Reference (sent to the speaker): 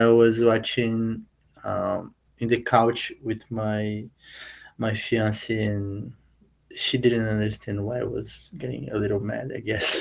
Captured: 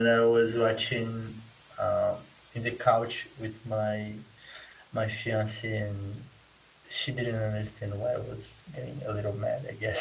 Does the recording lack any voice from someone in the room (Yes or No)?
Yes